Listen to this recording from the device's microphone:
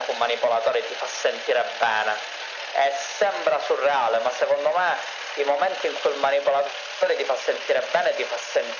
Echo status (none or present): present